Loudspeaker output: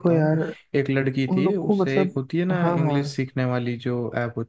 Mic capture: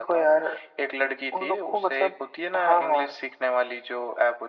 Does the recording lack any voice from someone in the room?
Yes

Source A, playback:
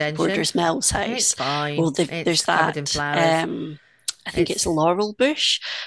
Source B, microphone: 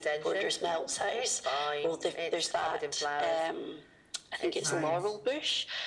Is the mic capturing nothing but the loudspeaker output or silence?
No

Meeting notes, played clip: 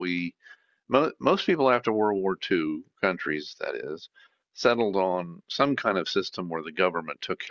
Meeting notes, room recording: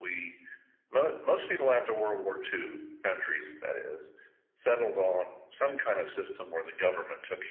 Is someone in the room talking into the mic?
No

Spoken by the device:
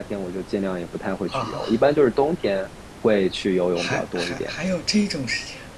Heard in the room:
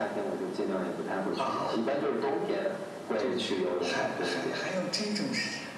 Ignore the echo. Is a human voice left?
Yes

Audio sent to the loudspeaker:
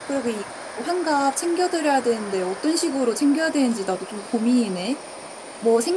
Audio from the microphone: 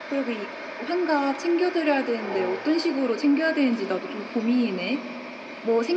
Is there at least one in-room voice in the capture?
Yes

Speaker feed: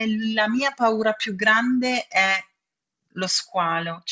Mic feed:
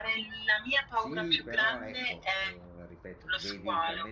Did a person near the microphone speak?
Yes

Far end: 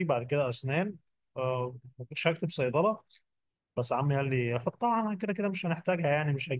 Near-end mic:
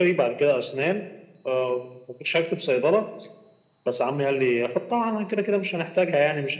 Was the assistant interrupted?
No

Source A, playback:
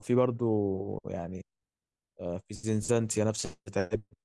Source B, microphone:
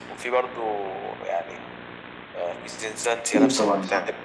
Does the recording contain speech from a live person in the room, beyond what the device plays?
Yes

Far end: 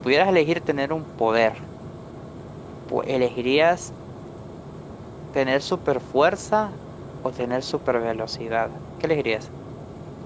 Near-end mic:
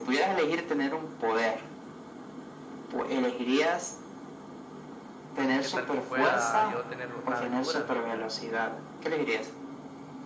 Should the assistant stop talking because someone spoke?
Yes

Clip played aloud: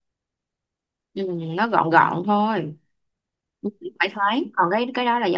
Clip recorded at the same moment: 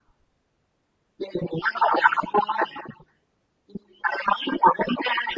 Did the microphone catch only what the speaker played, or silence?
Yes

